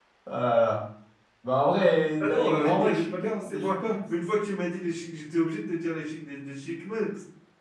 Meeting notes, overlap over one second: present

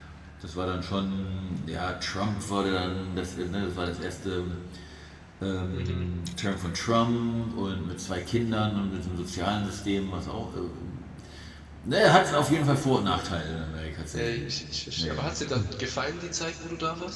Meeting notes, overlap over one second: none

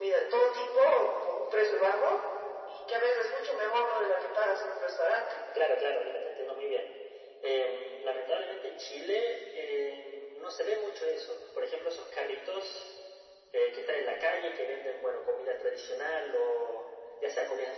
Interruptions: none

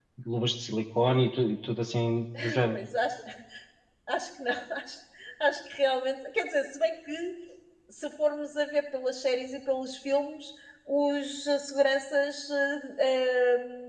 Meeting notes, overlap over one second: none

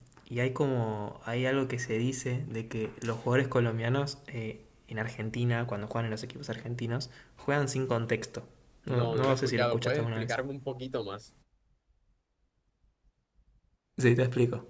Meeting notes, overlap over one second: present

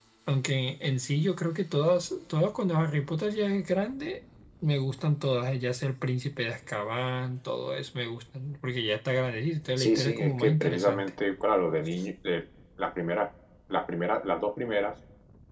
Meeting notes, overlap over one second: present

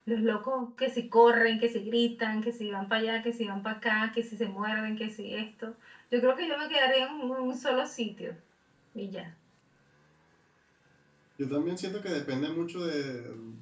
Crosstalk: none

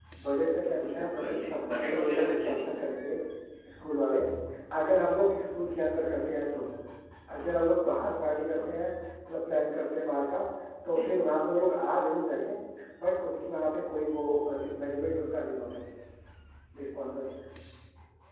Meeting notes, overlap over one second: present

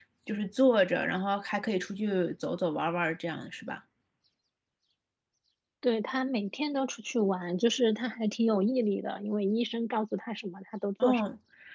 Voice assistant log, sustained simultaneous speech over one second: none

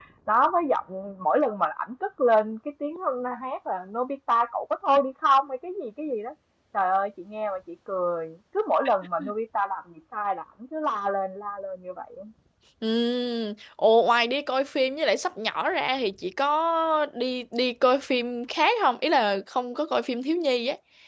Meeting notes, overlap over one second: none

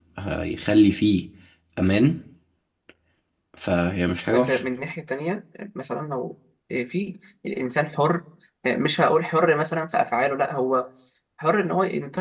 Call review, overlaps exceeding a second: none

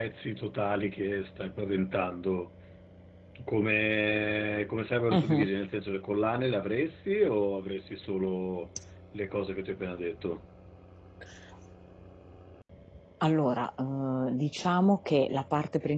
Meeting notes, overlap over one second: none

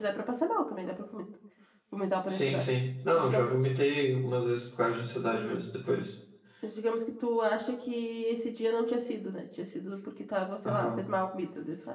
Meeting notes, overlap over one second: none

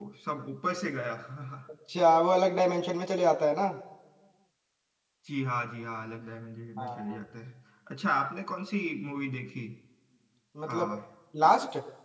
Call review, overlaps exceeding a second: none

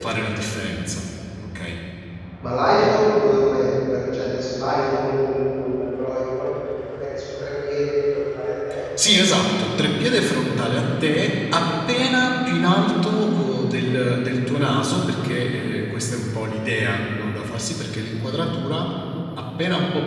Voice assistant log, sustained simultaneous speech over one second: none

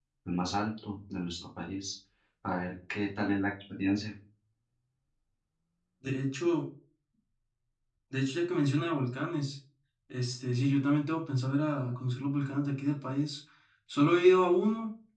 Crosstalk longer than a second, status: none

